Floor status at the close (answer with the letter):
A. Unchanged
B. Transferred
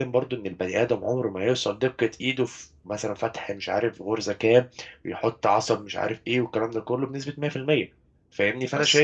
A